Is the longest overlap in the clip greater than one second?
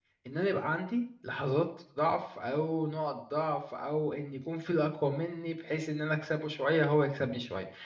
No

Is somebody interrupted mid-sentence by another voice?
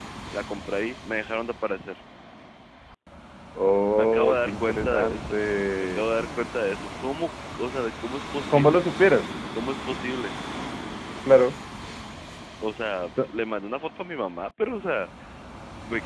Yes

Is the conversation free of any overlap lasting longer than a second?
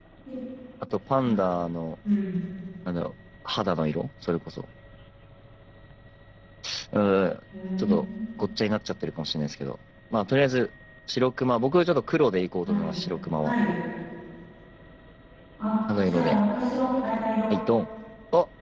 Yes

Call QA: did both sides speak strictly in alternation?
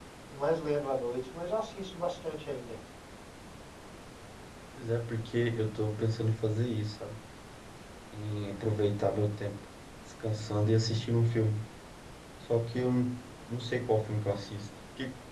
Yes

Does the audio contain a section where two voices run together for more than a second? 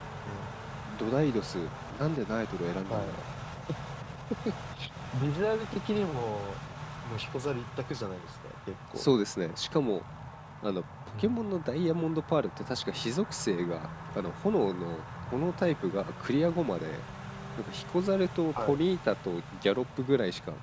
No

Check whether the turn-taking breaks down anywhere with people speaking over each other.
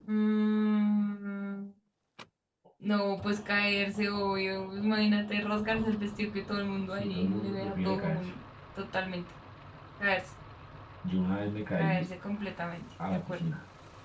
Yes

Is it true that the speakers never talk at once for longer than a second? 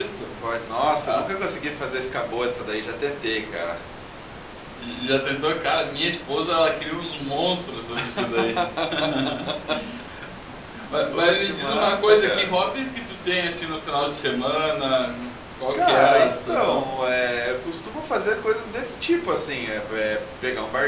No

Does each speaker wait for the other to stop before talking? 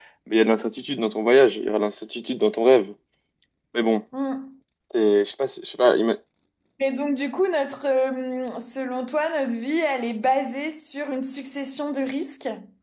Yes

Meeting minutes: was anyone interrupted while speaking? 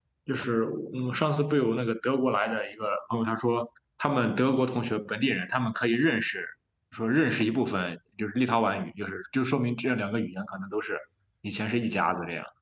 No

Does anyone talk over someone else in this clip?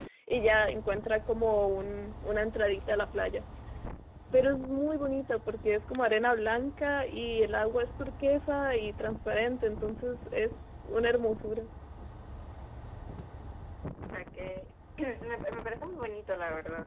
No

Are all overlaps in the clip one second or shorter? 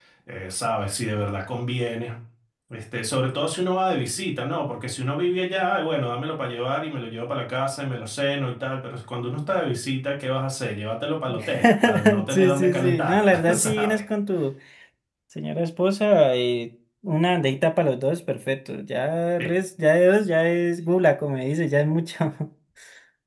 No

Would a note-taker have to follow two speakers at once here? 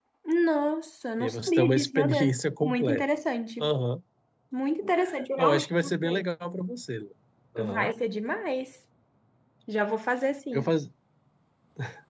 Yes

